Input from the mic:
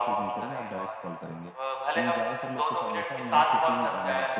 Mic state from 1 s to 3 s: both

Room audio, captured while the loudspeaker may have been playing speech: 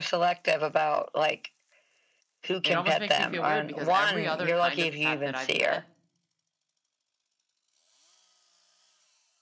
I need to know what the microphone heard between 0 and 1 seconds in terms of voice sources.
echo only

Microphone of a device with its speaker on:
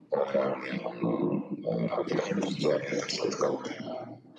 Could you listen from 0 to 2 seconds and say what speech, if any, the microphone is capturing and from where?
echo only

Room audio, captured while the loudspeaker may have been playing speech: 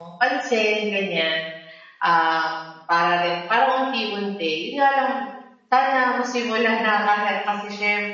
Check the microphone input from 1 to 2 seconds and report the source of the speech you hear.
user only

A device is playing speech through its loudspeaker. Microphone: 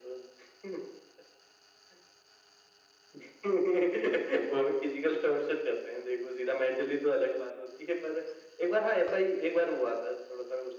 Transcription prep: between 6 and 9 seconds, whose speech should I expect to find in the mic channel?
echo only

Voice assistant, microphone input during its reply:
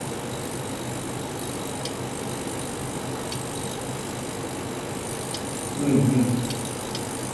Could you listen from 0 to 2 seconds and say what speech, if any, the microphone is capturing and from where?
neither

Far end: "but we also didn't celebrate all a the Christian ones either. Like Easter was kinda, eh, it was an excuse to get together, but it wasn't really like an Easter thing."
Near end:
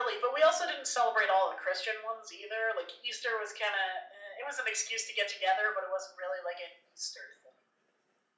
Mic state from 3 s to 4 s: echo only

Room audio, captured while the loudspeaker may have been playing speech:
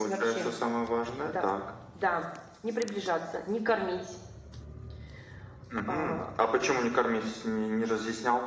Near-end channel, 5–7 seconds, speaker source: echo only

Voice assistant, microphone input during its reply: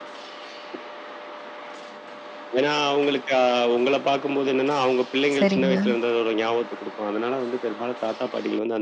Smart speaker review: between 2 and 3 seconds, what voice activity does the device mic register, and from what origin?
echo only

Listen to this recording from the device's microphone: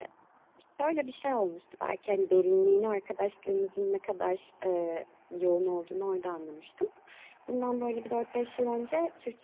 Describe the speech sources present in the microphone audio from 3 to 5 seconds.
echo only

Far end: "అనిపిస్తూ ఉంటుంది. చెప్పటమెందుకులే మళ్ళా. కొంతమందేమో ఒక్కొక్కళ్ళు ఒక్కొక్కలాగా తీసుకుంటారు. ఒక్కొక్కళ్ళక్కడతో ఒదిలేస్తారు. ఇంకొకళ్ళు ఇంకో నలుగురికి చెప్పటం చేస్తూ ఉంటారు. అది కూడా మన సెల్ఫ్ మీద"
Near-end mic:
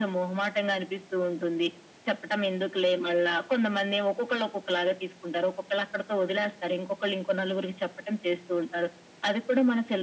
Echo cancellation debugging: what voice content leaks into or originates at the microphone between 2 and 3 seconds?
echo only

